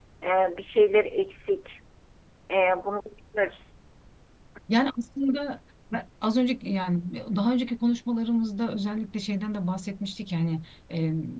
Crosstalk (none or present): none